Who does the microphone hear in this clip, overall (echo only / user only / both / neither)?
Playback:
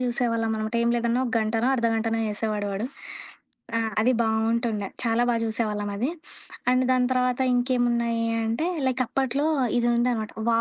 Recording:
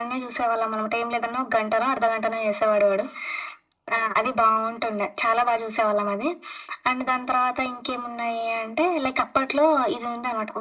echo only